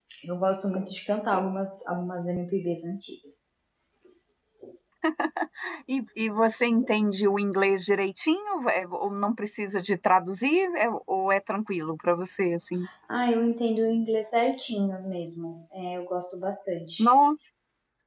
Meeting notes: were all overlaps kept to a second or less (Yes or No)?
Yes